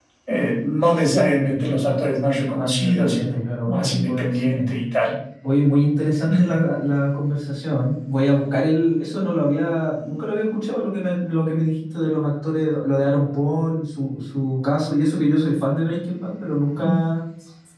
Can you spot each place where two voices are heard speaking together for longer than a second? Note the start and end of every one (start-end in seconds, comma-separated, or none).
2.3-4.7